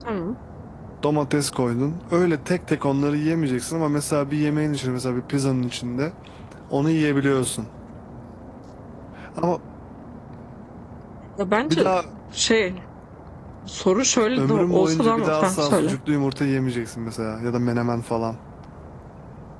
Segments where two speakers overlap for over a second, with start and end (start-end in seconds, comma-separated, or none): 14.4-15.9